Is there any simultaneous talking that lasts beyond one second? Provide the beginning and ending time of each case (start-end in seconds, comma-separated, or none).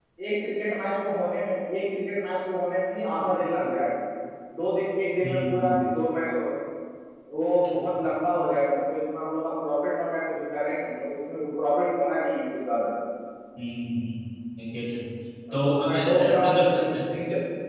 15.5-16.9